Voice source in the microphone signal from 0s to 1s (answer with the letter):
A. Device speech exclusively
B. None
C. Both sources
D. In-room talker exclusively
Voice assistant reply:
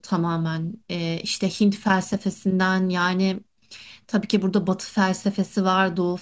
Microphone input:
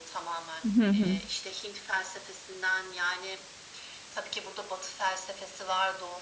C